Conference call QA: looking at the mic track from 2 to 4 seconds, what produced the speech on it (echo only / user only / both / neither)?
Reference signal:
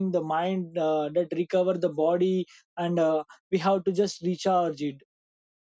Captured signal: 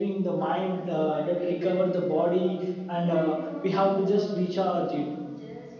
both